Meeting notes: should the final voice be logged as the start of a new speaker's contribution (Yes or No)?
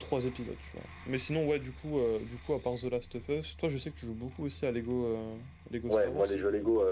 Yes